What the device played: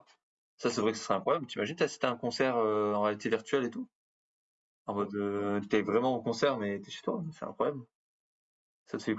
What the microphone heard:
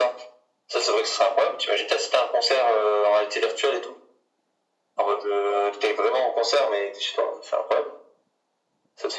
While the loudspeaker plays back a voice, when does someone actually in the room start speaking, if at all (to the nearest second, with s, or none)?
none